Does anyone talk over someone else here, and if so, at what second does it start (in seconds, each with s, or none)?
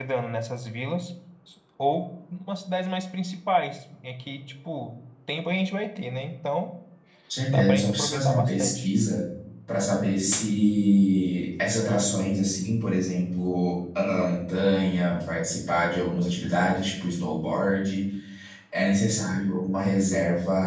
7.5 s